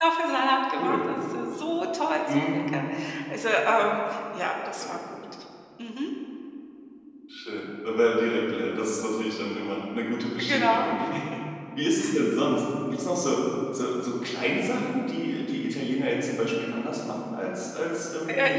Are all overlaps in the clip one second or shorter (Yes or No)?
Yes